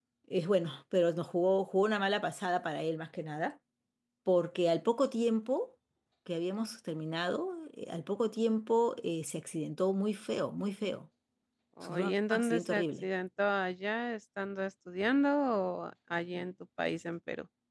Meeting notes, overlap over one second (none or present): present